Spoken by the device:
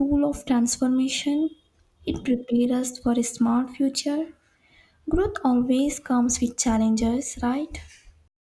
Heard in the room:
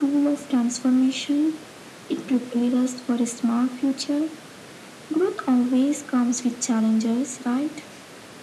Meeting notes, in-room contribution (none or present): none